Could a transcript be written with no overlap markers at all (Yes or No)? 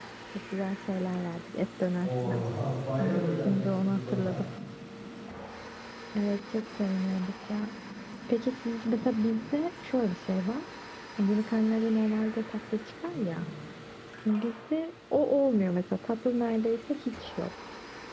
No